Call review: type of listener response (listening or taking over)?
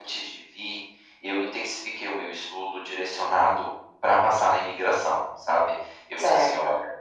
listening